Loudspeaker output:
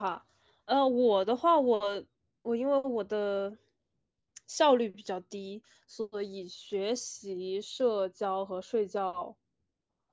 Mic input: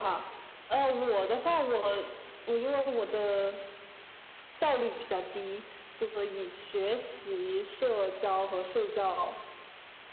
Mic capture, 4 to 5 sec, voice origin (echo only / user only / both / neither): echo only